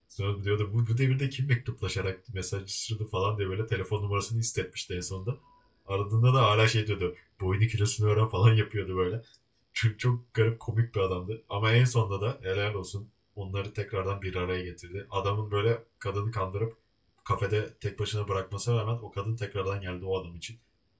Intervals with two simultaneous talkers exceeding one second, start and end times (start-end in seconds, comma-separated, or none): none